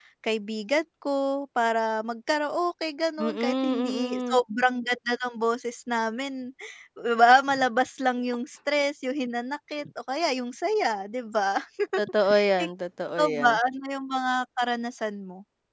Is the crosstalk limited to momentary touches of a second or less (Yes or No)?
No